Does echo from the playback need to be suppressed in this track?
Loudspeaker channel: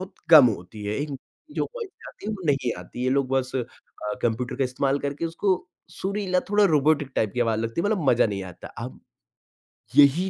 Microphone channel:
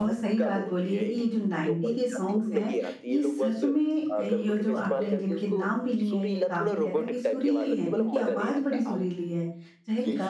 Yes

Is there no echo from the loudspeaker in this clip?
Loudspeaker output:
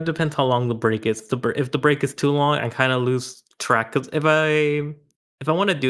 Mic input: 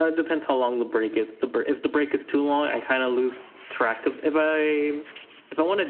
No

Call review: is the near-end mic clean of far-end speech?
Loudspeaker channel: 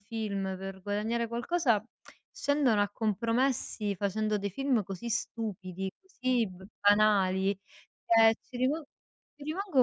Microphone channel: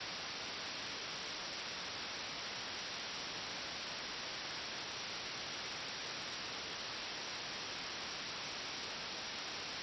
Yes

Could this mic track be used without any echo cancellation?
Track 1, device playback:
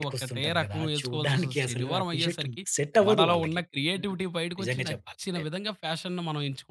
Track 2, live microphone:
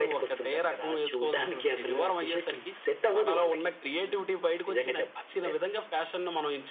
No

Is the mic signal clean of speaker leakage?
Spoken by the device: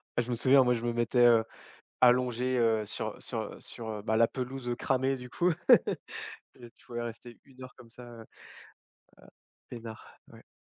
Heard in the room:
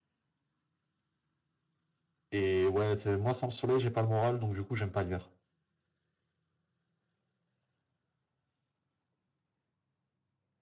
Yes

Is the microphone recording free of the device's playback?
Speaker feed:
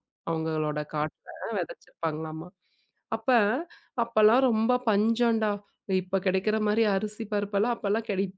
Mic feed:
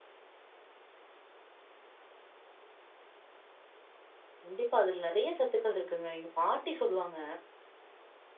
Yes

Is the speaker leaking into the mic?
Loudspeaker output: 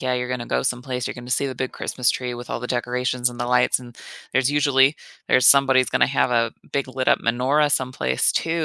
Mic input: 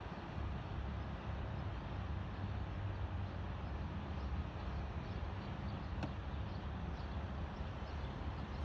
No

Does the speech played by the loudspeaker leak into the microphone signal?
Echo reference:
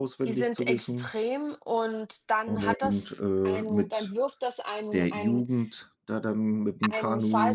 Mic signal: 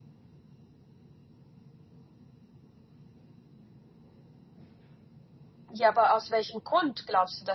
No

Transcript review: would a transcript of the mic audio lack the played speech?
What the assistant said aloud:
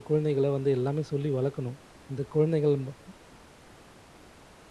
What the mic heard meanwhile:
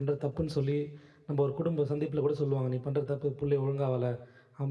Yes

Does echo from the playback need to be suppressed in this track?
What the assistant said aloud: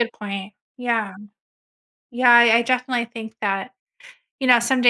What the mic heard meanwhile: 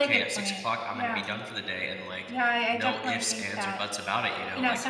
Yes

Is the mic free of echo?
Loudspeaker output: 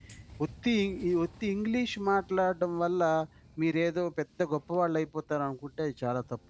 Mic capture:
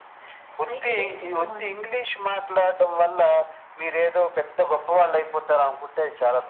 No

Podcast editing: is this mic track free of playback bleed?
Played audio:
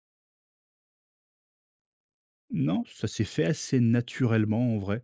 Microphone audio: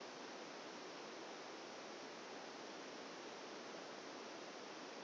Yes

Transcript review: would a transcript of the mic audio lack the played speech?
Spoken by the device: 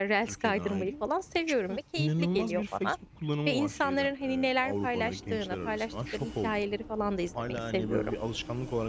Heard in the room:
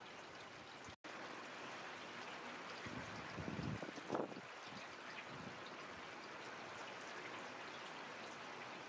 Yes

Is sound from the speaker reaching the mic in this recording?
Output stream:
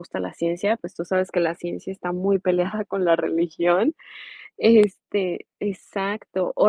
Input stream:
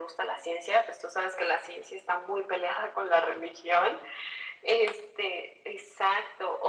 Yes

